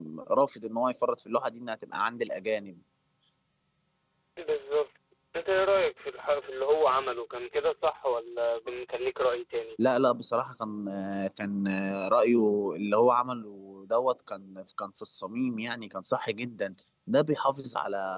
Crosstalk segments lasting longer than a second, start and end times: none

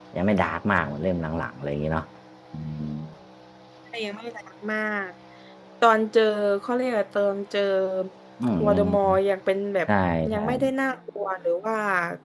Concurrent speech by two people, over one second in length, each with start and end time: none

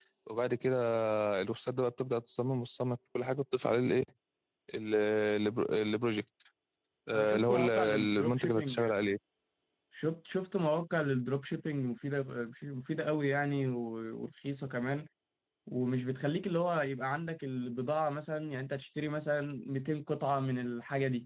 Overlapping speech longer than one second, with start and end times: 7.1-8.9

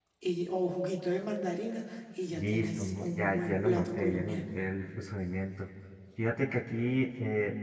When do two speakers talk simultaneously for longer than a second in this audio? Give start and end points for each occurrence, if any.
2.4-4.4

